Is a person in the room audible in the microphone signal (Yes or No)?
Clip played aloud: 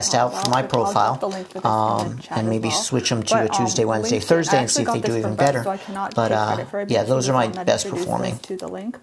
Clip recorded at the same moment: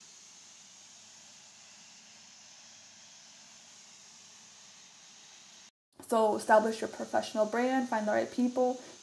Yes